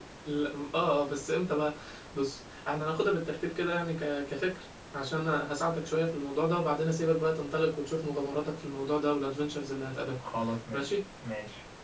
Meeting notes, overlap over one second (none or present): none